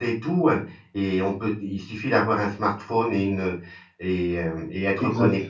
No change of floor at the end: Yes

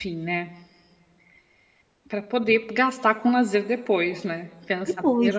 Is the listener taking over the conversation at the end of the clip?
Yes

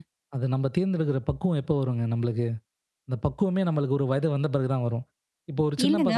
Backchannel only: No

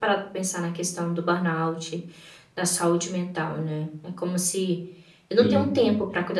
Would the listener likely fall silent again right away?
Yes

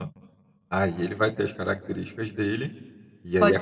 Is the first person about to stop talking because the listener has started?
Yes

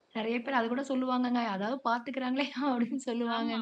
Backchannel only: No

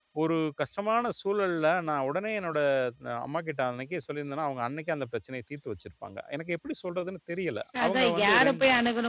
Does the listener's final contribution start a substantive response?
Yes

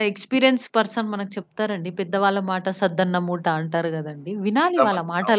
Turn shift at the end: Yes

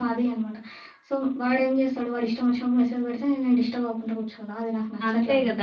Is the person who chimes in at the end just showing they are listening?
No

